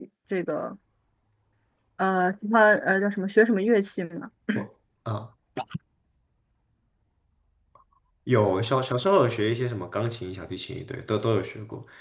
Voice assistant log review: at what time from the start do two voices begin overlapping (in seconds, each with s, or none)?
none